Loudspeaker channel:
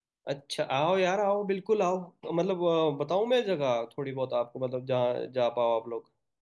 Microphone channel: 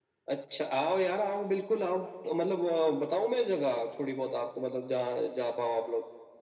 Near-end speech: none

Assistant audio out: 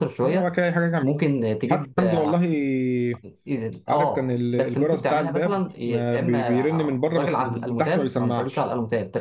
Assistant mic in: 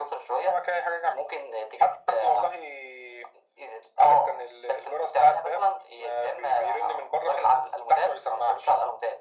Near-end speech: none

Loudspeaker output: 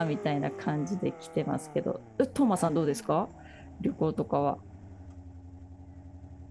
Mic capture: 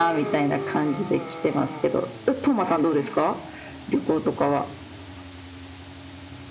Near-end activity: none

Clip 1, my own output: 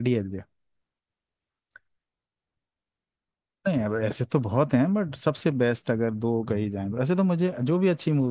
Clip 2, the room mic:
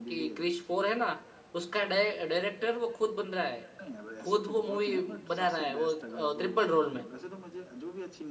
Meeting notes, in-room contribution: present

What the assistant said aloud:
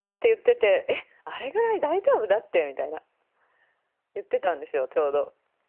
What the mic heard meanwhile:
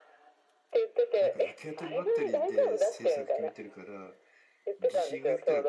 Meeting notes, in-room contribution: present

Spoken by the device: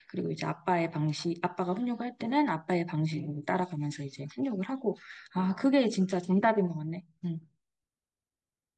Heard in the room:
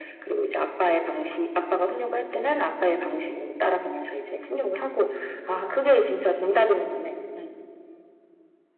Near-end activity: none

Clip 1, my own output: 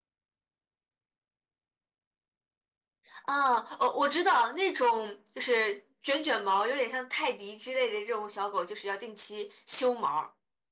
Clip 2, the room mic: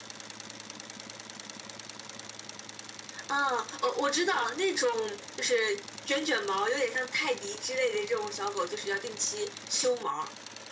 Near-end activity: none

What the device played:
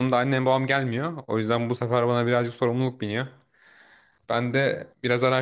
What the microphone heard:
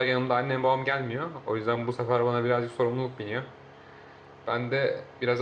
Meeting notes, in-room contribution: none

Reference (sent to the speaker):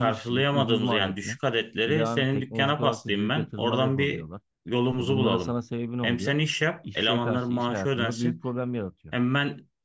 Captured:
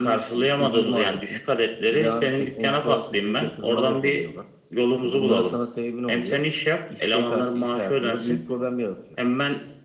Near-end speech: none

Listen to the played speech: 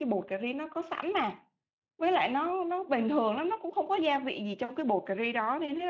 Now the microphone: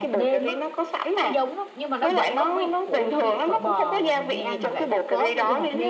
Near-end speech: present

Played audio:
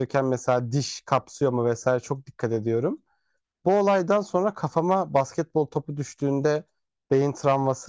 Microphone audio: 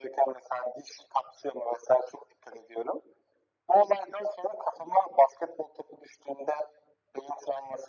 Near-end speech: none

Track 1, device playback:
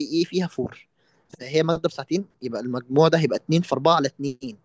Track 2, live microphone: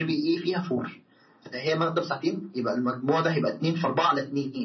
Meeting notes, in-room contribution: none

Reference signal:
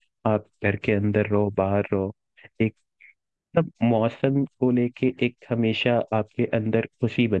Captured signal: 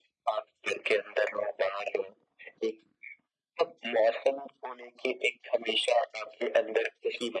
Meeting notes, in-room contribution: none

